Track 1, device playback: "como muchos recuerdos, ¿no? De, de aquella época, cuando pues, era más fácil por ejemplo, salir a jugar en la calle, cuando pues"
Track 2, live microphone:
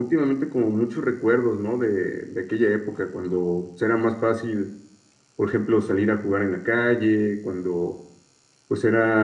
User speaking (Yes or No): No